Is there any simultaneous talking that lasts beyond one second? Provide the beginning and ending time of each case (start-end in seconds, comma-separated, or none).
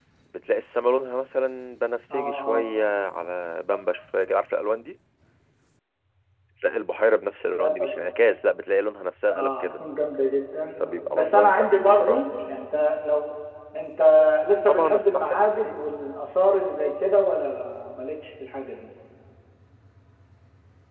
10.8-12.2, 14.7-15.9